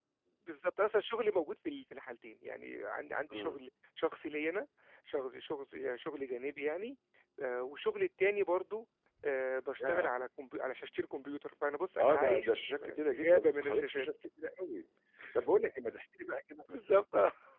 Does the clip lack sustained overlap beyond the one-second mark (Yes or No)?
No